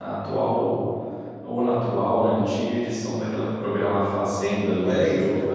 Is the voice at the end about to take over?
Yes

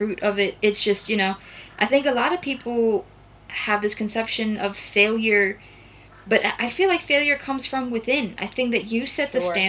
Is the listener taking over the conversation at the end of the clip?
No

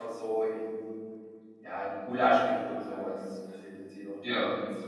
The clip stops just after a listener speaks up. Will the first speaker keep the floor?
Yes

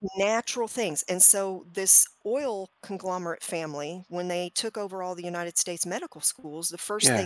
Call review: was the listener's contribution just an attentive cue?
Yes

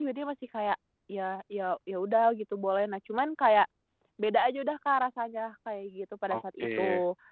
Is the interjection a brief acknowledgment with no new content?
No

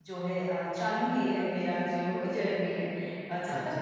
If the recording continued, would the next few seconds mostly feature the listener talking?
Yes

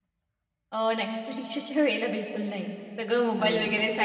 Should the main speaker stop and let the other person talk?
No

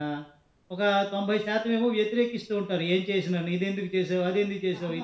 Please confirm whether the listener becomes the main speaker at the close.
Yes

